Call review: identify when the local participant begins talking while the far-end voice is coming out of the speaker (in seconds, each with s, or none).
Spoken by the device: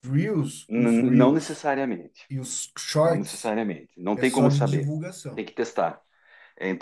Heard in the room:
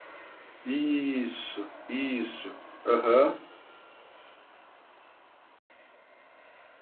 0.6 s